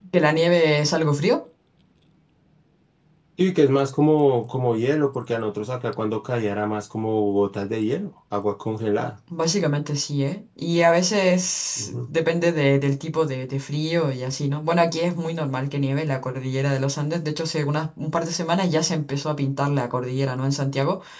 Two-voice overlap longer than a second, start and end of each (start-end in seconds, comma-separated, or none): none